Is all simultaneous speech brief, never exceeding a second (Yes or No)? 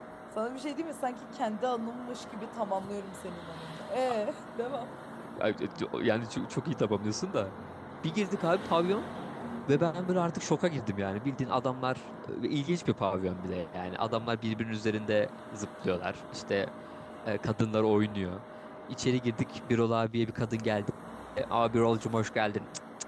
Yes